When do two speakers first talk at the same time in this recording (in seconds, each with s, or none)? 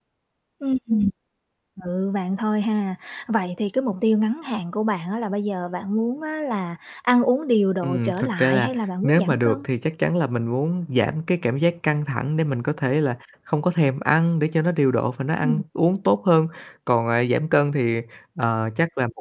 7.8 s